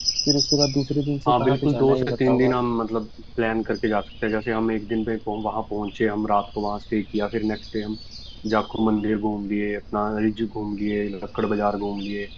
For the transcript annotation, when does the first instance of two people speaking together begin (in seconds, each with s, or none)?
1.2 s